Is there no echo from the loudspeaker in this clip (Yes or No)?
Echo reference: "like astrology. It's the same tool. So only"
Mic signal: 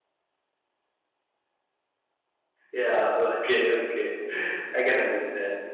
Yes